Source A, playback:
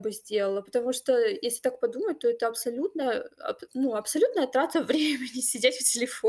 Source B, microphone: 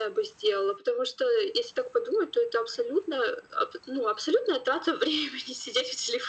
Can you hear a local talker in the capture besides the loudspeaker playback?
No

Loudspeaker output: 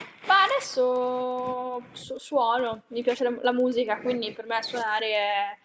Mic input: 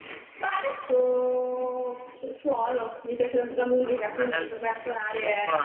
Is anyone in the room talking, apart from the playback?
Yes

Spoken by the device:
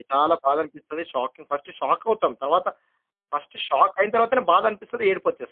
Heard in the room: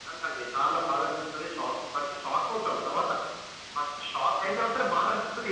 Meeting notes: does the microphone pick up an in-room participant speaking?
No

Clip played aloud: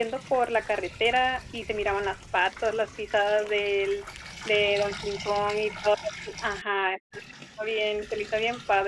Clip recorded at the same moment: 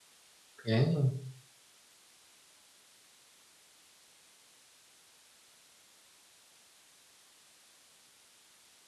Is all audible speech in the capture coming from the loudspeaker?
No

